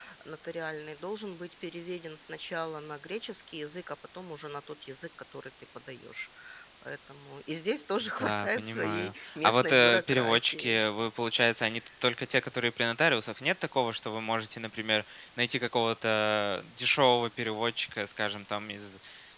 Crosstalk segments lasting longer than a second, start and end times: 8.2-10.8

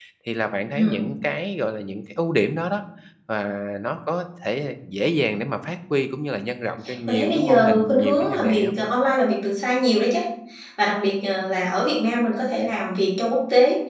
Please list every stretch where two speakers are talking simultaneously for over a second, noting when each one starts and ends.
7.1-8.7

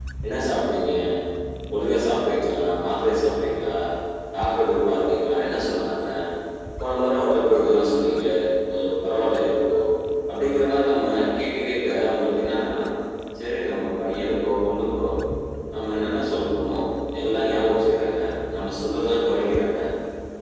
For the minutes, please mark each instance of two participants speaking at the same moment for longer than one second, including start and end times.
none

